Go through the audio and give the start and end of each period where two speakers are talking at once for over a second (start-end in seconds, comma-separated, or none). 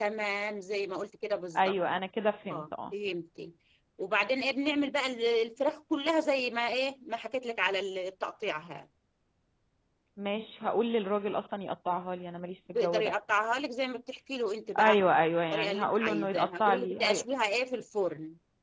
15.5-17.2